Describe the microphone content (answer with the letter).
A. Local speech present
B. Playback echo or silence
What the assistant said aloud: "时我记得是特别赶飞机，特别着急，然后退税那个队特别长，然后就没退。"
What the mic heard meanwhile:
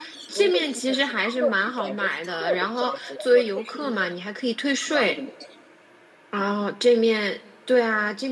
A